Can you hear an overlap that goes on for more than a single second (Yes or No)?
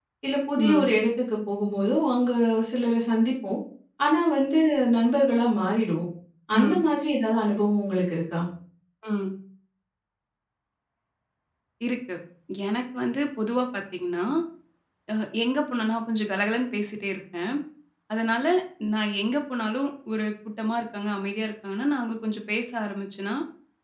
No